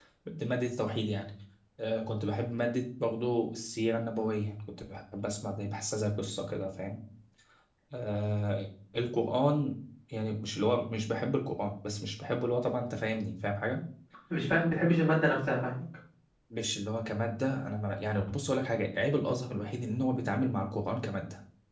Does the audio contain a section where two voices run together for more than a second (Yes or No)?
No